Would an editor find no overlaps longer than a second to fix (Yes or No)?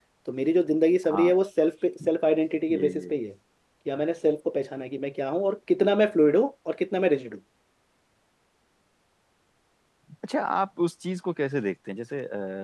Yes